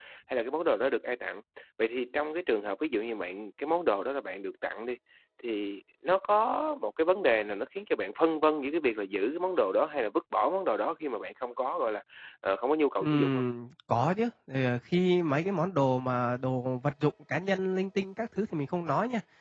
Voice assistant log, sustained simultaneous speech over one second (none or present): none